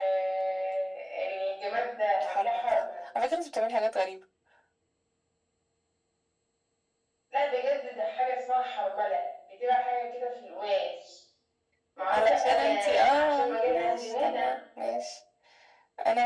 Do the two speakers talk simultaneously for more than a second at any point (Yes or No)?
Yes